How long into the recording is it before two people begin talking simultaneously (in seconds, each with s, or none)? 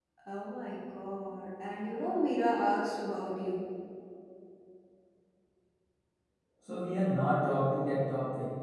none